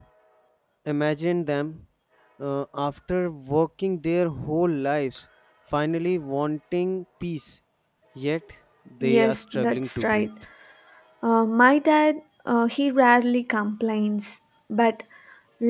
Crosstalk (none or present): present